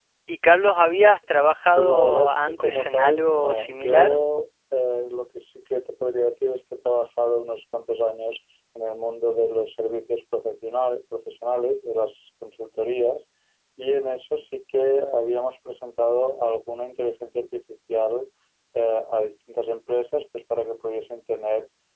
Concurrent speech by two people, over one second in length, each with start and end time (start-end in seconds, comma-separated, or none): 1.8-4.2